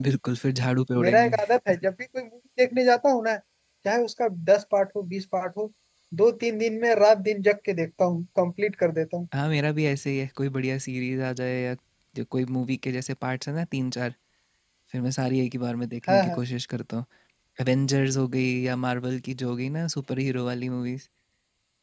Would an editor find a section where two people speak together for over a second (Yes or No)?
No